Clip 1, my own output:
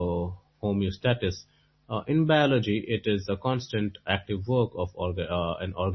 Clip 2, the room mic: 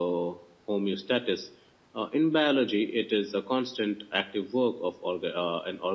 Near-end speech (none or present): none